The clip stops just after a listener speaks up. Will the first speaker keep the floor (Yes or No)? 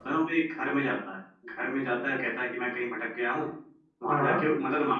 Yes